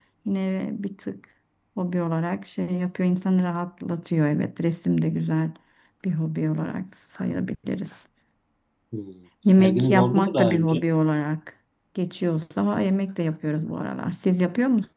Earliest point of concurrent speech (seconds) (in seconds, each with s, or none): 9.5 s